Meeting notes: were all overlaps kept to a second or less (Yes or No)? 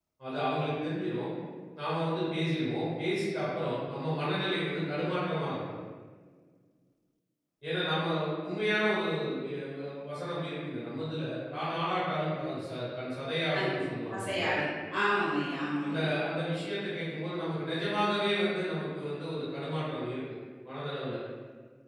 Yes